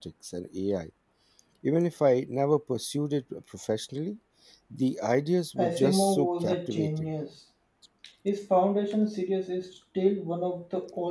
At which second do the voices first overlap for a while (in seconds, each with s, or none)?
5.6 s